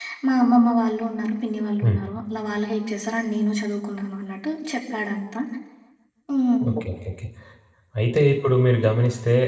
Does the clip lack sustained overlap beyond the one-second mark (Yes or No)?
Yes